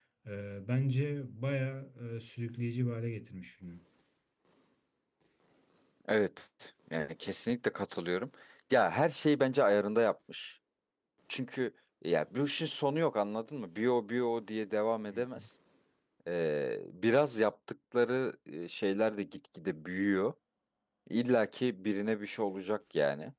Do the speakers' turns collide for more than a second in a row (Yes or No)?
No